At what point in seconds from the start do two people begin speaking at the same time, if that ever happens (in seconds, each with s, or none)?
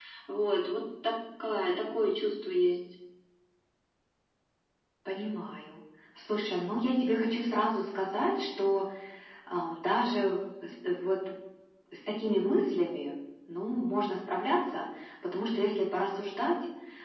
none